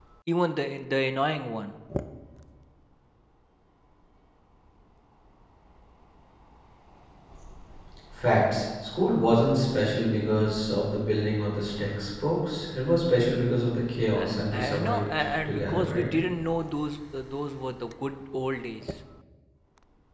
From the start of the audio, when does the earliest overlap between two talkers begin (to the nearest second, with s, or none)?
14 s